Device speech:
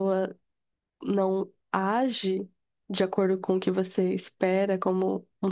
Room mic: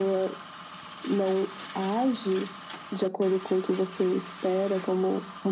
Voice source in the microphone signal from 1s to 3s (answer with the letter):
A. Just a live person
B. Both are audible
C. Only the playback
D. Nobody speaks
C